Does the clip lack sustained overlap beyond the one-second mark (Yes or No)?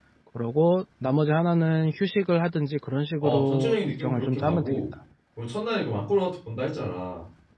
No